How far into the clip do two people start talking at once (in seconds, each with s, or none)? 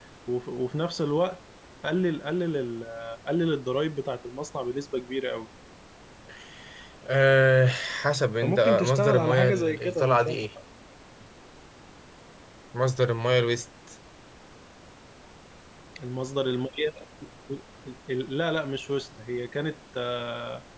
8.4 s